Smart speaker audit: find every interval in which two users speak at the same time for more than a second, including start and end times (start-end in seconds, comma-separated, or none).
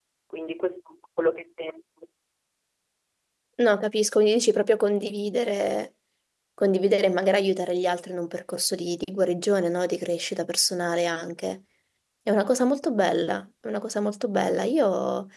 none